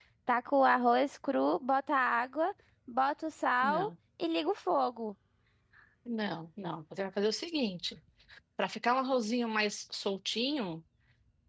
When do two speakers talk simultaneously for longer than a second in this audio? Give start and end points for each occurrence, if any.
none

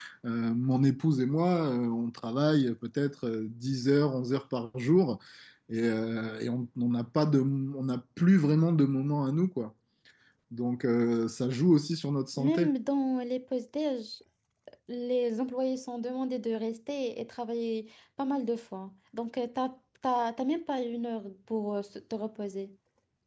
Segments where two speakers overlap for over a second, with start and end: none

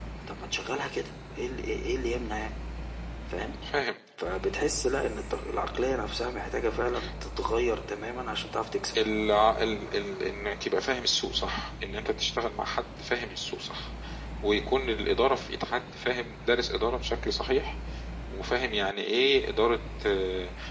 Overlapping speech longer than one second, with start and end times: none

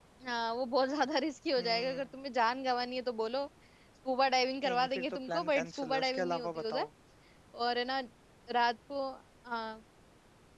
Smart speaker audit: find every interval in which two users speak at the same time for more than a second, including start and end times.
4.6-6.9

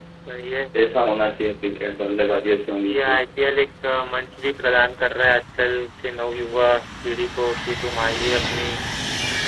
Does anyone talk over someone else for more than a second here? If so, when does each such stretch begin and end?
none

